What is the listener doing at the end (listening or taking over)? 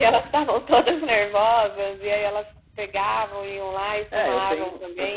taking over